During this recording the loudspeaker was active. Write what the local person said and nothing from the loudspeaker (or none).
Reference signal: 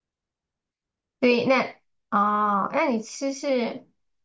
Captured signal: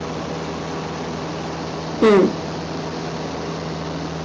嗯